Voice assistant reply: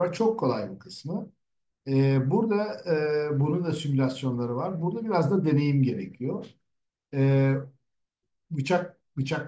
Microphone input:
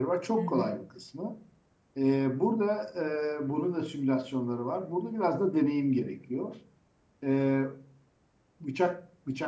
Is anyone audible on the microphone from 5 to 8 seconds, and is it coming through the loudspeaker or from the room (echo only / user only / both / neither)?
echo only